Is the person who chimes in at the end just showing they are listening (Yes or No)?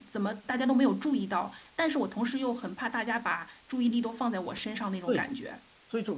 No